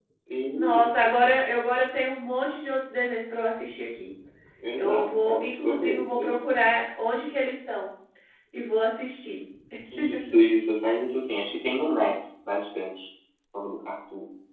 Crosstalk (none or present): present